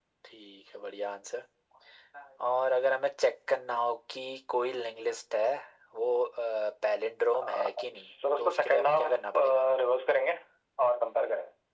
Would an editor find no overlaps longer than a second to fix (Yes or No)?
No